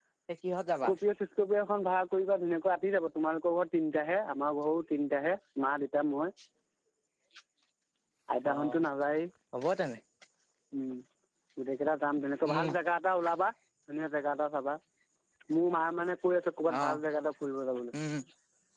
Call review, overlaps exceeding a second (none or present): none